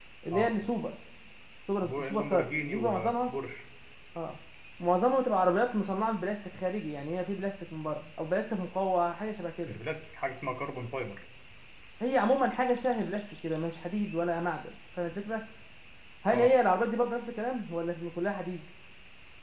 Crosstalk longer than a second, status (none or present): present